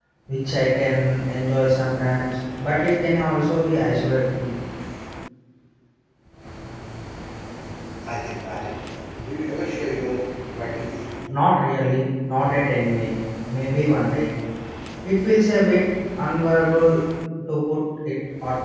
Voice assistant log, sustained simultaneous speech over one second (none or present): none